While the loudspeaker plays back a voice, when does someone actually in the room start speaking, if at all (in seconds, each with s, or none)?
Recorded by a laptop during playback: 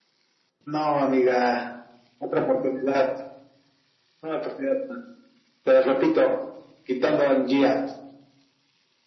none